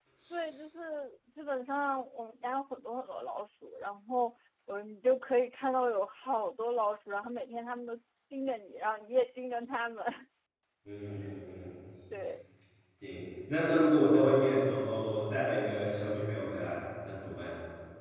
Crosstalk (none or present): none